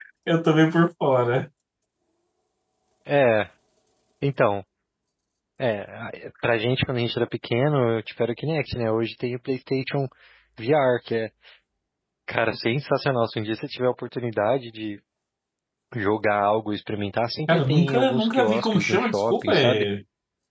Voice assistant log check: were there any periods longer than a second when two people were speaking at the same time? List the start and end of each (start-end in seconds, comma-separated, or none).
17.5-19.9